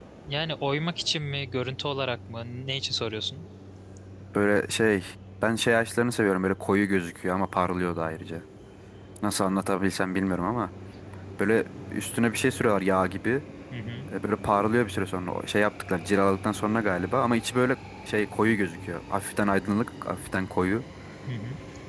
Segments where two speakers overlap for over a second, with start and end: none

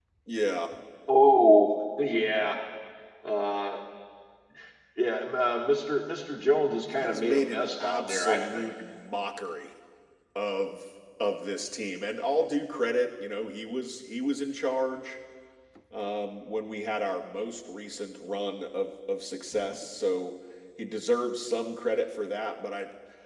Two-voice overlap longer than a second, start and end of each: 6.9-8.7

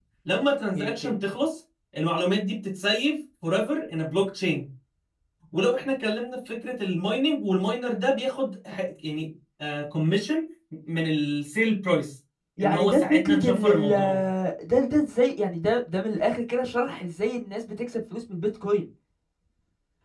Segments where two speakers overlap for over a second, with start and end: 12.6-14.2

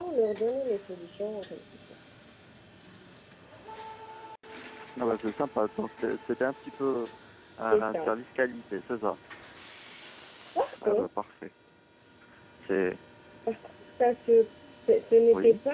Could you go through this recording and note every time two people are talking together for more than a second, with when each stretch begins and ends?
none

